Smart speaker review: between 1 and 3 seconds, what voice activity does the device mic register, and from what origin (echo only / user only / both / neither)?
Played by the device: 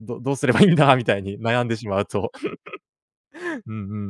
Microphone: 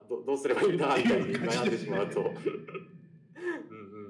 both